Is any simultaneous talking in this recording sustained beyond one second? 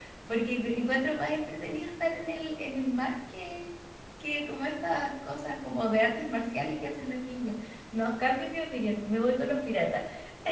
No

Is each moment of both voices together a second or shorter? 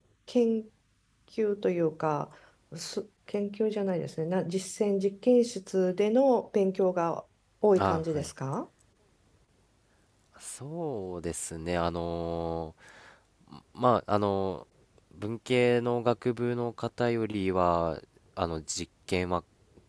Yes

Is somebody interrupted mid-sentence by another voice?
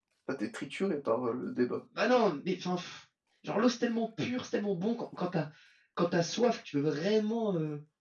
No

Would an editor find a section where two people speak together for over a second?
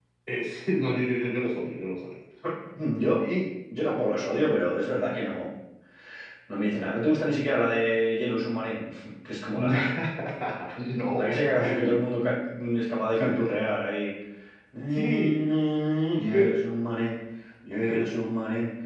No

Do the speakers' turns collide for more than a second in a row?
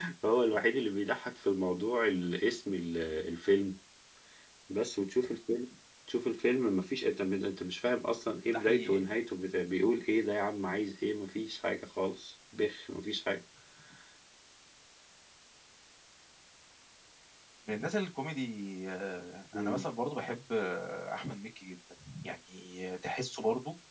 No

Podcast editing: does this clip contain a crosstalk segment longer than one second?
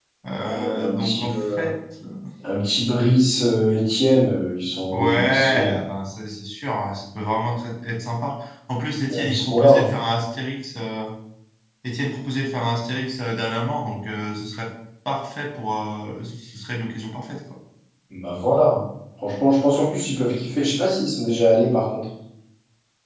Yes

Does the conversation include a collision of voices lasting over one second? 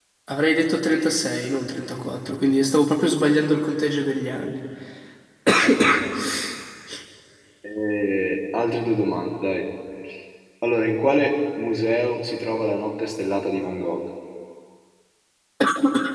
No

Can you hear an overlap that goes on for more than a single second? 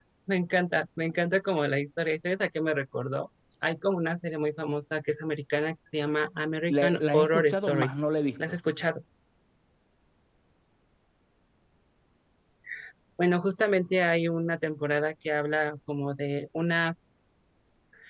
Yes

